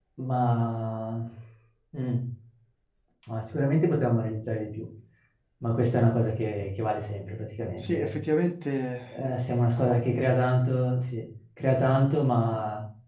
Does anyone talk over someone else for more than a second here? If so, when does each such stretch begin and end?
none

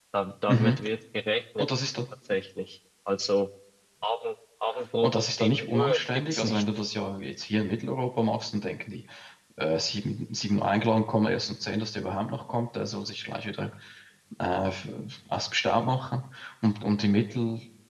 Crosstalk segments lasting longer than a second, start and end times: 5.0-6.6

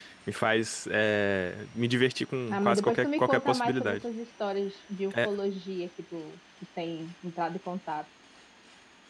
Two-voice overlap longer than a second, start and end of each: 2.5-4.0

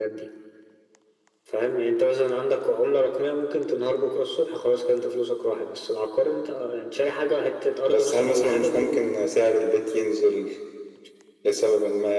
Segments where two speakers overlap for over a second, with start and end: 7.9-9.1

